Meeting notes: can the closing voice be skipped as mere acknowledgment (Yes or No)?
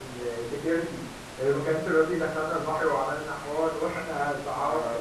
No